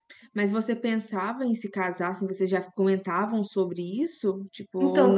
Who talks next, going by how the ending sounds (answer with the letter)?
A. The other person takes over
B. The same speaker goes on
A